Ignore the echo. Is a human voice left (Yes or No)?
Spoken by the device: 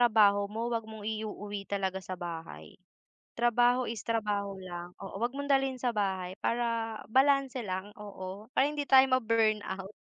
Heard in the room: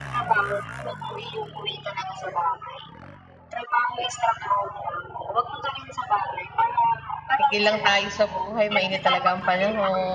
Yes